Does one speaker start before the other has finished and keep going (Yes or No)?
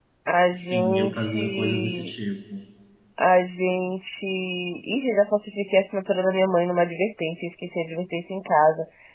Yes